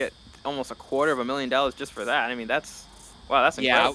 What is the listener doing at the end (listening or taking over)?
taking over